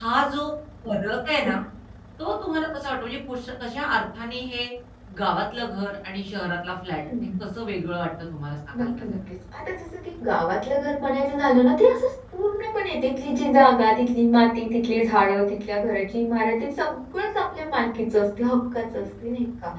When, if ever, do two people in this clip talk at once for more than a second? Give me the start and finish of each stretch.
none

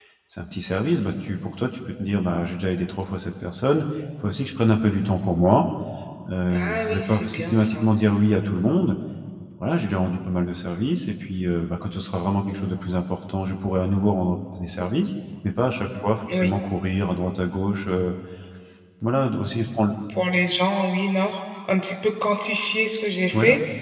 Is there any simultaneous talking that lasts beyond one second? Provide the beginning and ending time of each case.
6.5-7.8

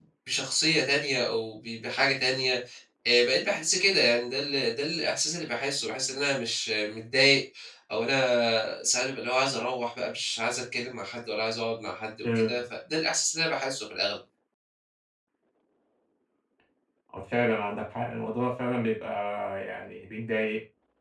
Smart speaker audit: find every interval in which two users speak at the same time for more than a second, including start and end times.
none

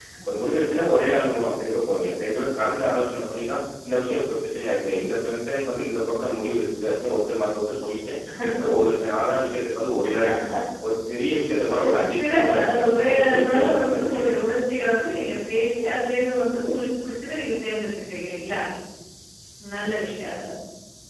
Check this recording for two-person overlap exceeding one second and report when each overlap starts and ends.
12.2-14.4

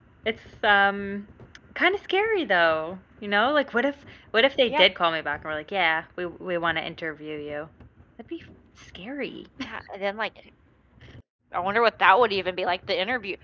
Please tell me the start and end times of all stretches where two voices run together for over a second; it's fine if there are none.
none

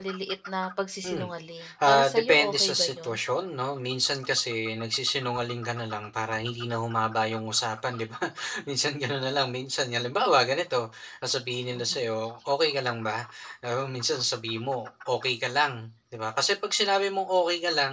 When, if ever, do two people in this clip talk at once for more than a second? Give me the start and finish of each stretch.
1.9-3.1

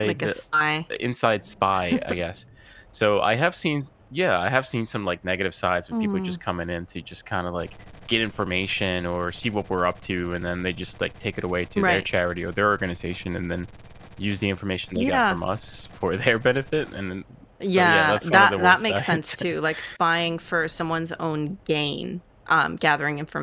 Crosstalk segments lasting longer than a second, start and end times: 17.7-19.4

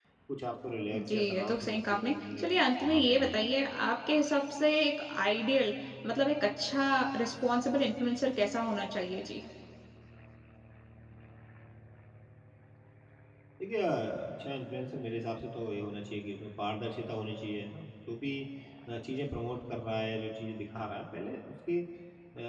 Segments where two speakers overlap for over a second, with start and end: 1.0-3.4

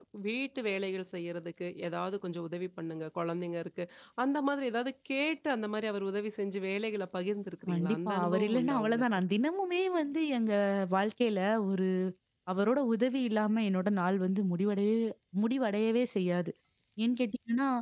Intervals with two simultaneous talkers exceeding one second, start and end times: 7.7-9.0

